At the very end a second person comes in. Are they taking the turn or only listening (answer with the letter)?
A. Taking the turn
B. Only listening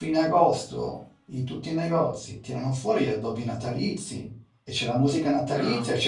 B